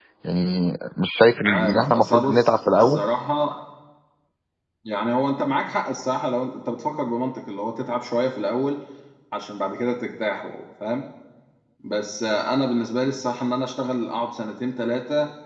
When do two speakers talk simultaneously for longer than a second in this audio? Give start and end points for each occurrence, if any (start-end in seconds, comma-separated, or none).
1.5-3.0